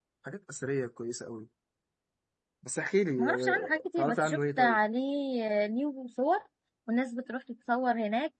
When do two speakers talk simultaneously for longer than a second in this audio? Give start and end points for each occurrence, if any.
3.2-4.8

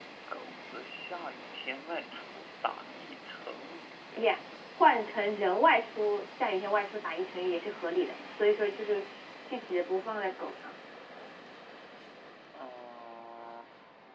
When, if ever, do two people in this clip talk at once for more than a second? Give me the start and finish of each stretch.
none

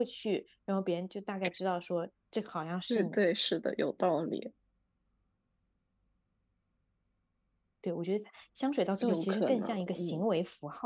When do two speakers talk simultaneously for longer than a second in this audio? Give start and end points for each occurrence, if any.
9.0-10.2

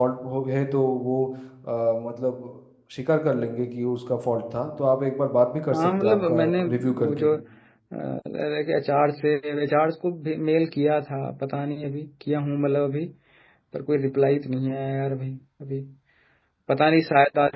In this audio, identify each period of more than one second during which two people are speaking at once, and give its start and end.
5.7-7.3

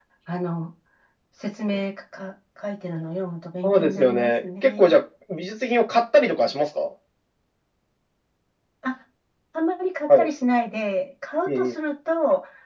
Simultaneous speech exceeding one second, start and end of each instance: 3.6-5.0

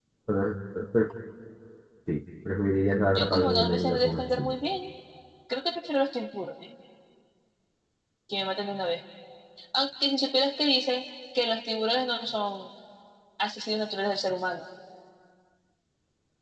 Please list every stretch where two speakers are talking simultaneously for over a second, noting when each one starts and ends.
3.2-4.5

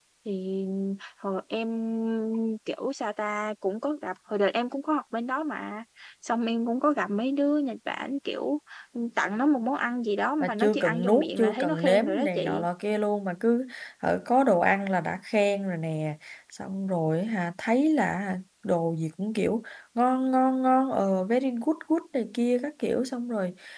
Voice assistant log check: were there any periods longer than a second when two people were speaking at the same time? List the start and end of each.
10.4-12.7

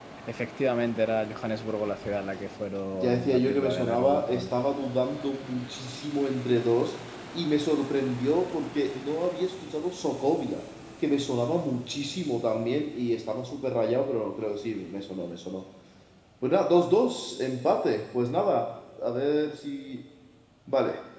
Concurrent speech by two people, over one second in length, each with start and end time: 3.0-4.5

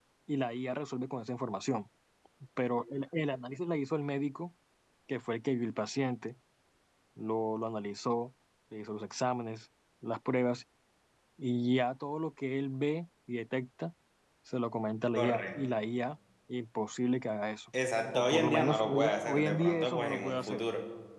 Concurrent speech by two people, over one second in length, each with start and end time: 18.1-20.6

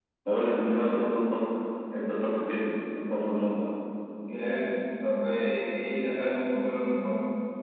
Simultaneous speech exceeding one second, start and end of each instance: none

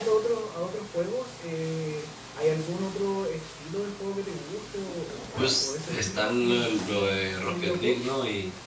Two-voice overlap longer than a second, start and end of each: 5.6-8.0

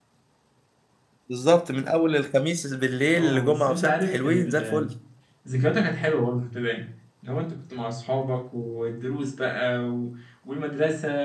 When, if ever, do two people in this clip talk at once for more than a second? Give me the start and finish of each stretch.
3.1-4.9

